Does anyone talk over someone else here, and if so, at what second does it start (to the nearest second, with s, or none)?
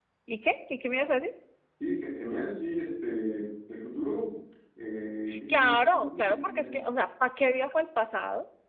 5 s